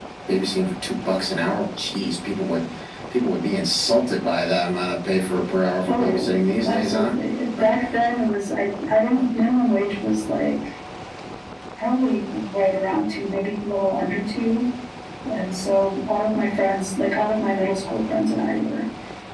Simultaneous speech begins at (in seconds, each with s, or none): 5.9 s